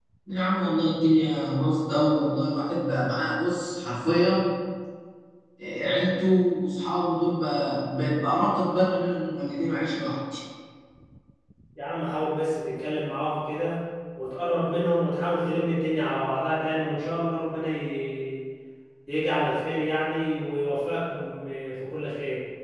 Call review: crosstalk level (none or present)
none